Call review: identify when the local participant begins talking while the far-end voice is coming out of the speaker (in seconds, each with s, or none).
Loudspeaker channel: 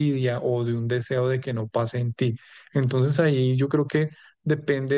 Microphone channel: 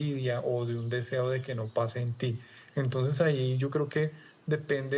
none